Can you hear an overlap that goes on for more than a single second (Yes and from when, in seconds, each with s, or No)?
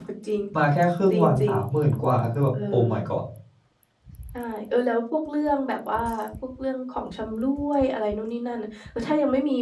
No